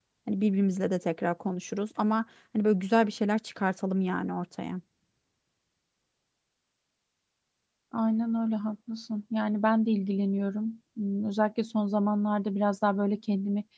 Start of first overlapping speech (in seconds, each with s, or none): none